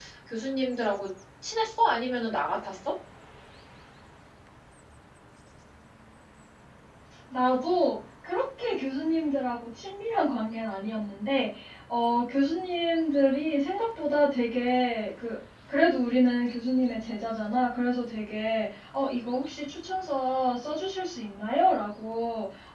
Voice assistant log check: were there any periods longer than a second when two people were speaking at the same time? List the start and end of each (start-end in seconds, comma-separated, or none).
none